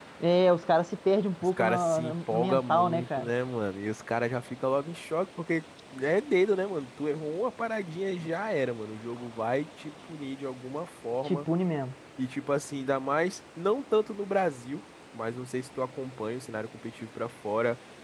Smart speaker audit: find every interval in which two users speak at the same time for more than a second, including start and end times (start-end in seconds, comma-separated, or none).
1.6-3.3